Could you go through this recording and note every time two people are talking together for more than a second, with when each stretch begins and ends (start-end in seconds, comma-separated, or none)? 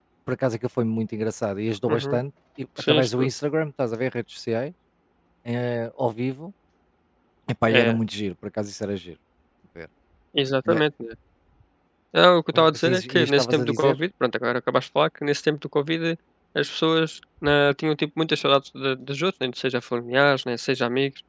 12.5-14.0